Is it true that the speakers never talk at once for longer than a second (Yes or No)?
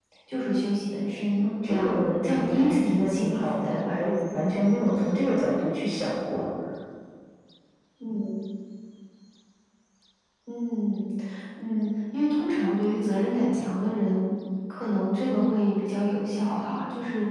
No